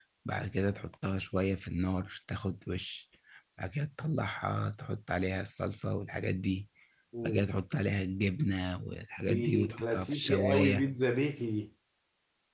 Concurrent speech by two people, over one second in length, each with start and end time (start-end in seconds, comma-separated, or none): 9.2-10.8